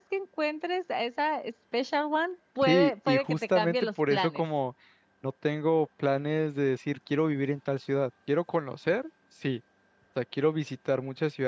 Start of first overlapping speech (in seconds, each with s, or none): 2.6 s